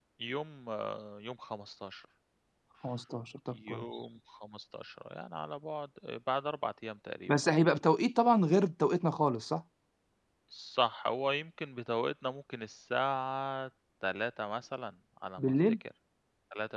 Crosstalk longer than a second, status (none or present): none